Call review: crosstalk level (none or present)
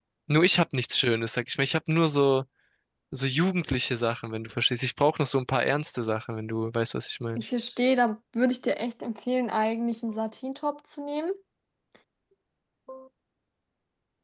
none